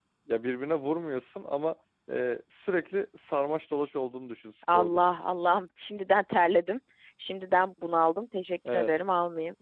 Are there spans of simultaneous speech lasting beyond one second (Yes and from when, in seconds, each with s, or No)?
No